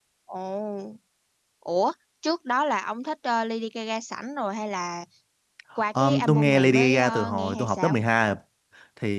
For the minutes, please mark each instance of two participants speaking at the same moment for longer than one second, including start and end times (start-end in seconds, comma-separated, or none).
6.0-7.9